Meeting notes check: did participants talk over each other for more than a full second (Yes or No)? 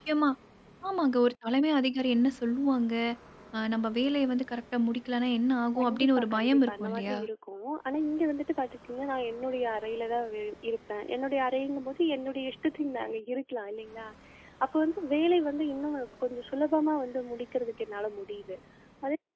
Yes